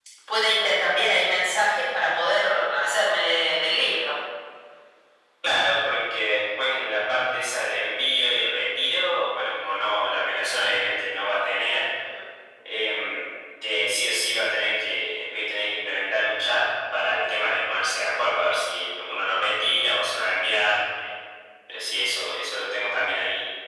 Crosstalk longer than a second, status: none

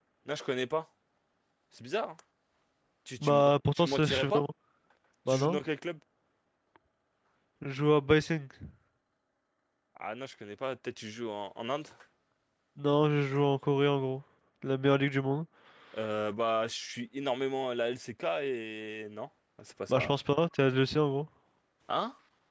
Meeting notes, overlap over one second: present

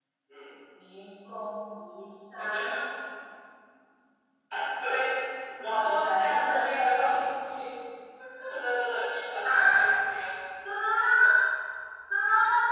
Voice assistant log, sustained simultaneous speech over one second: present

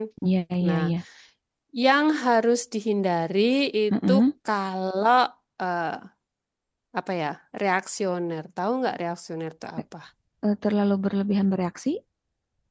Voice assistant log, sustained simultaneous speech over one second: none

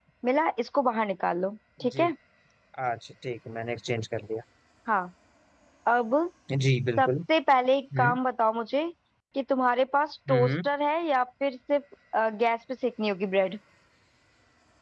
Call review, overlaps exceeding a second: none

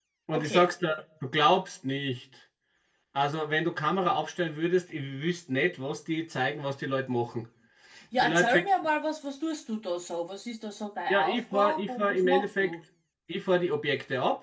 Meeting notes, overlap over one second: present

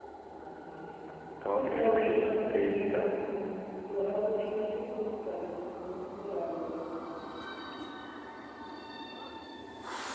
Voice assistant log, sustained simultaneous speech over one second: present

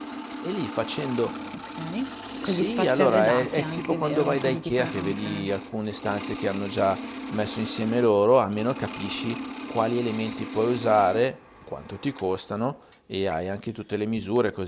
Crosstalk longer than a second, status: present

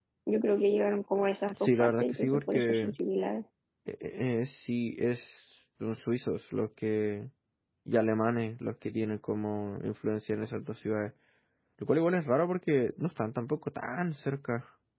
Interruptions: present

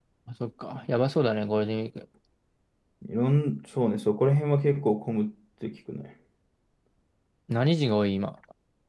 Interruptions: none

